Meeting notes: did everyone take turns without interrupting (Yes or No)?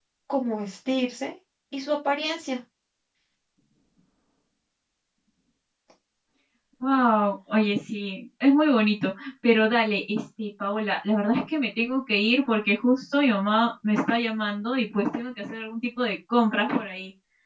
Yes